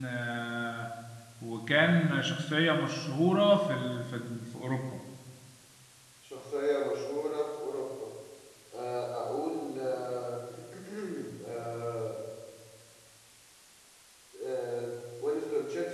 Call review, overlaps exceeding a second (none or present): none